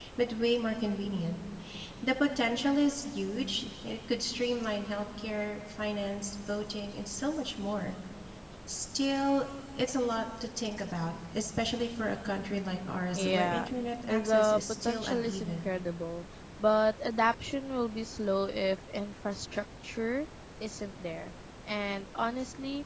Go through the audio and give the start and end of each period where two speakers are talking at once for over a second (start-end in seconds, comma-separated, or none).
14.1-15.7